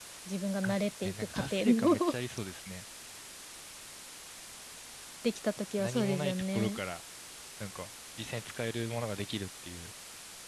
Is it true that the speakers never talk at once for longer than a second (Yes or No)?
No